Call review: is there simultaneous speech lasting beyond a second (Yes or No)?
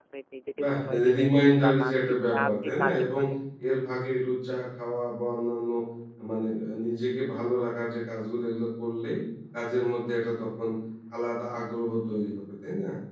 Yes